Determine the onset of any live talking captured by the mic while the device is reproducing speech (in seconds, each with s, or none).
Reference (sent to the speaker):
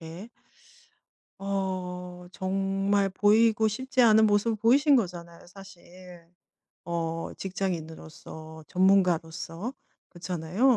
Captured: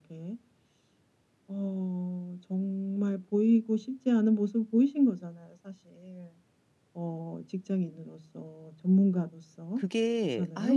9.7 s